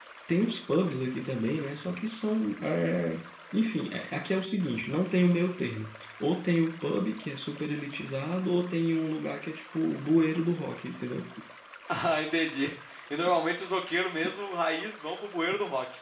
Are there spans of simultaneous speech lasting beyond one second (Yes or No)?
No